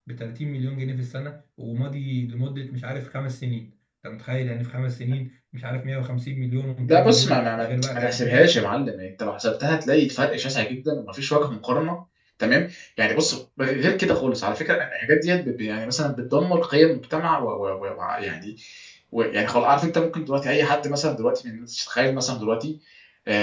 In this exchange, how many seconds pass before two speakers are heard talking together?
7 s

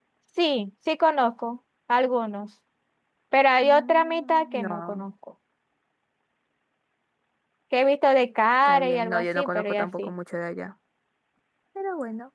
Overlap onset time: 4 s

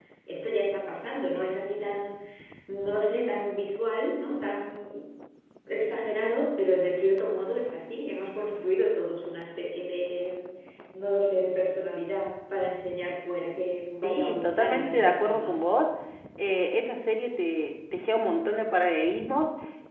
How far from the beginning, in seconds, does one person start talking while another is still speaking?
14 s

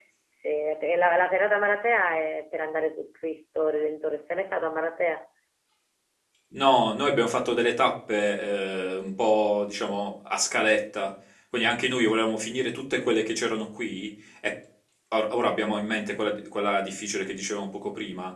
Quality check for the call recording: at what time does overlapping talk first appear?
none

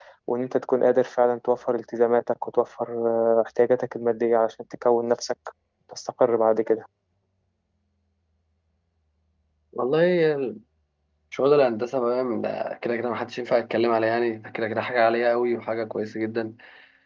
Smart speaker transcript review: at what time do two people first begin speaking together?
none

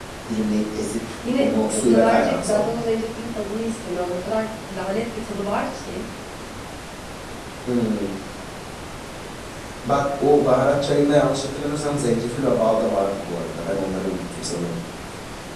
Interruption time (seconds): 1 s

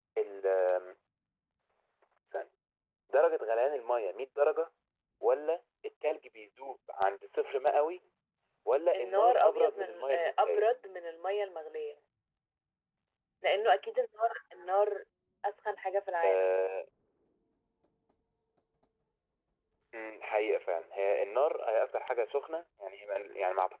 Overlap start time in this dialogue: 9 s

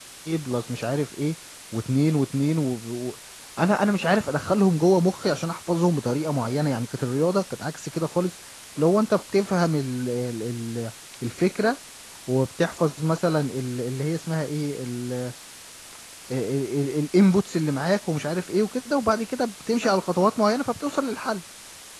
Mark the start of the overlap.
none

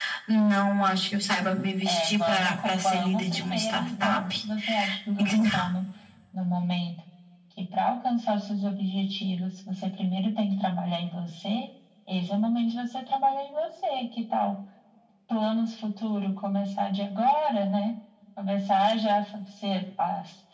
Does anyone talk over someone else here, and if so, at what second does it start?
2 s

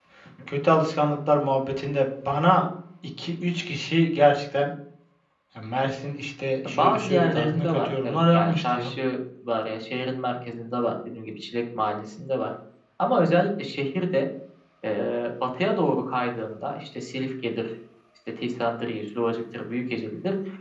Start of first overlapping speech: 7 s

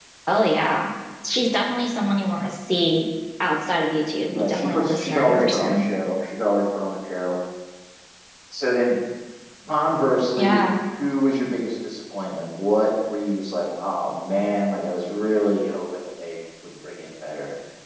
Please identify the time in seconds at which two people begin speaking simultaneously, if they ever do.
4 s

